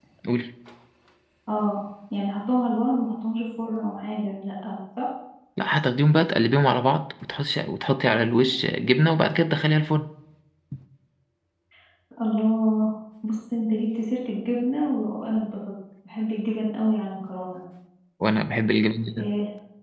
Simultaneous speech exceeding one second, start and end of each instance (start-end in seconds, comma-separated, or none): none